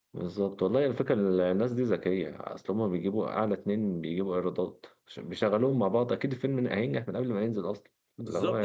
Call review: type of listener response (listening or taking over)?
taking over